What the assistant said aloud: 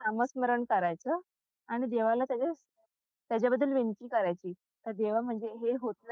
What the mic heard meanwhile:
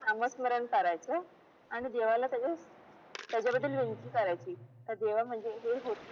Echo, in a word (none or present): present